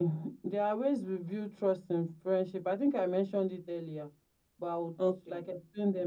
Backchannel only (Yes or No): Yes